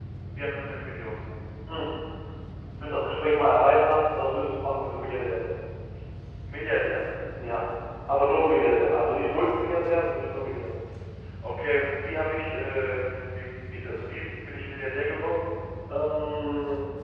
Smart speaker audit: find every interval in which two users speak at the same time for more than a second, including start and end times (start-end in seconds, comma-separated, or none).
none